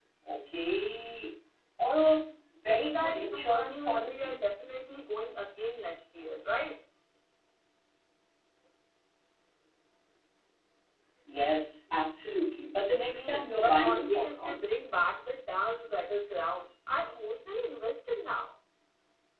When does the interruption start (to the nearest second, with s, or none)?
3 s